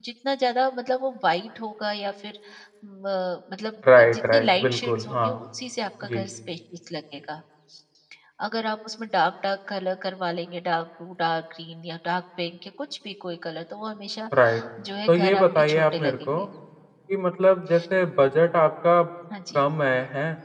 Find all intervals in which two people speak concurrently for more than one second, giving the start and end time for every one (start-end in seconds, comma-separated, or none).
4.0-5.4, 15.1-16.4